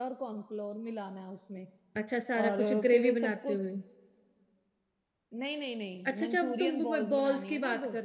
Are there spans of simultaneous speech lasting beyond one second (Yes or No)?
Yes